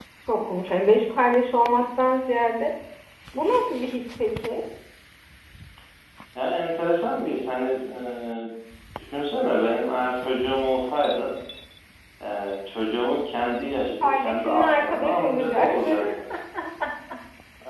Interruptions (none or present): present